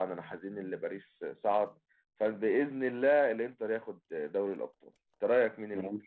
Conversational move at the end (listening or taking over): taking over